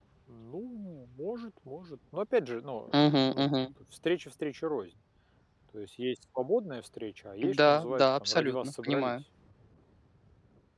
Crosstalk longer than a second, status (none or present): present